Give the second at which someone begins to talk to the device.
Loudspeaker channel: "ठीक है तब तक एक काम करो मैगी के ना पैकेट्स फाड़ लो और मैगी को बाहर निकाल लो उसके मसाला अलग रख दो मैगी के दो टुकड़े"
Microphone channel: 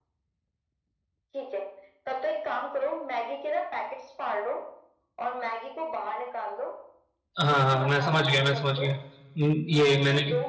7 s

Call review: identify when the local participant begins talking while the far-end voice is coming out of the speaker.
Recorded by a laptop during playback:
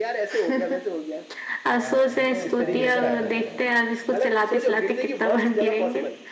2 s

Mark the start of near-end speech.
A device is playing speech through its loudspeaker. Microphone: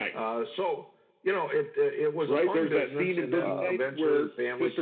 3 s

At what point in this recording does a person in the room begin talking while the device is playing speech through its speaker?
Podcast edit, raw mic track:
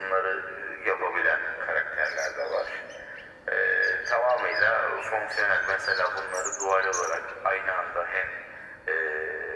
none

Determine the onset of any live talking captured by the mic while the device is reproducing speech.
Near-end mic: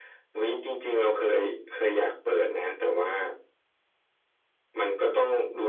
none

